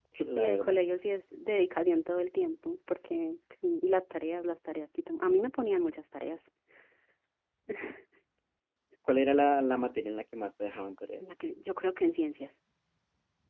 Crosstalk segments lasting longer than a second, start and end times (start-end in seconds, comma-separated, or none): none